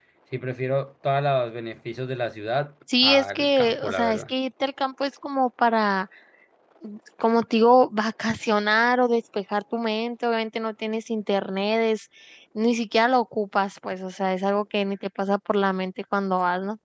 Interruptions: present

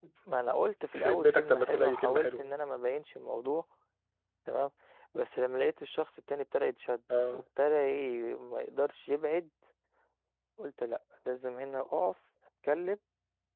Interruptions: present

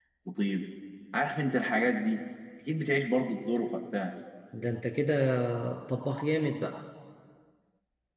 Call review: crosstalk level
none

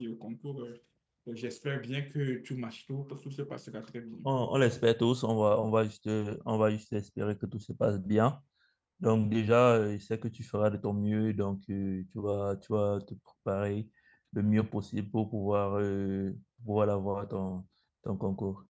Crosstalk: none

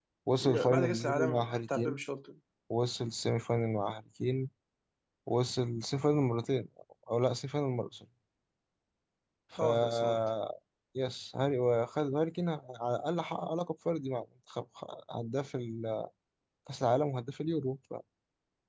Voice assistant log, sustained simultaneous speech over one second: present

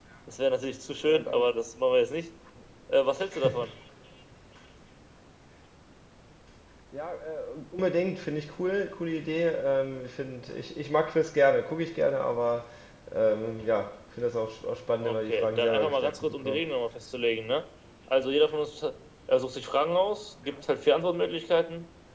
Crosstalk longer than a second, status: present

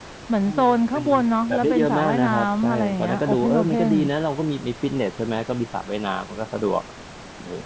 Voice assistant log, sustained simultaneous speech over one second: present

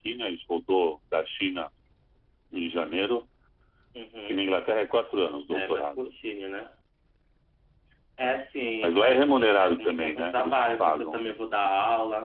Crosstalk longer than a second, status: present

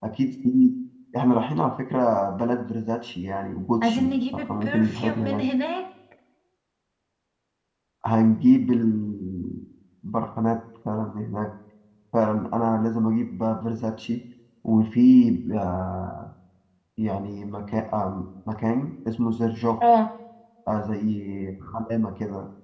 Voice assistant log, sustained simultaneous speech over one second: present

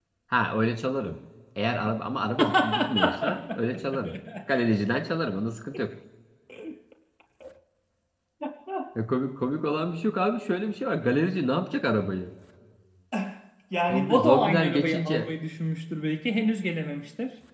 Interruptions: present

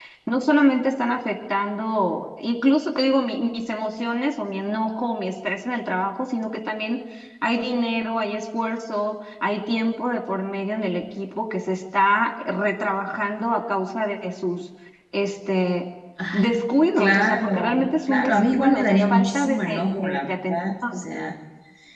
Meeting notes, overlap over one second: present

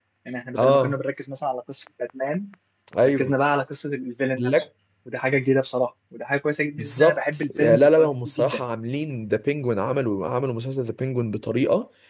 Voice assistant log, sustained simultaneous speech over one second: present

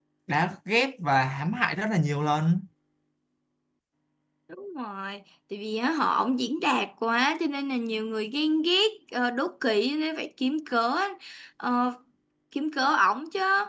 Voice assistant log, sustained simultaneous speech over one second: none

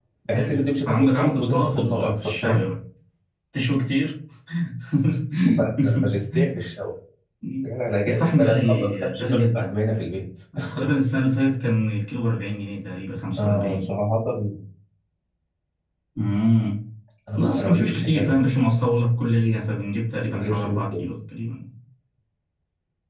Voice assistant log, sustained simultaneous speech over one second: present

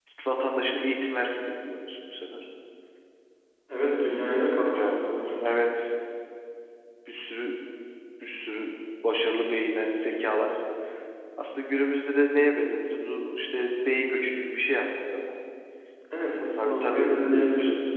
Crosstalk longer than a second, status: present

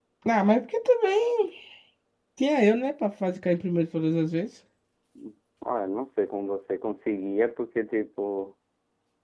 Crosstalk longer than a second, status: none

